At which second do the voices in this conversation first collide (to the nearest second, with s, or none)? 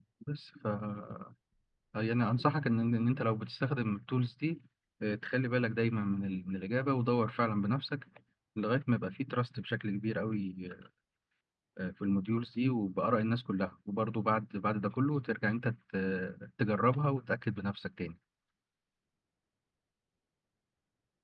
none